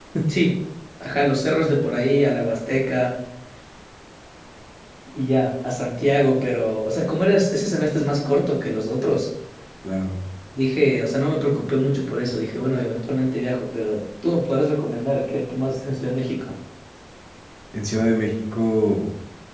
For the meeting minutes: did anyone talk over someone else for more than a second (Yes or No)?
No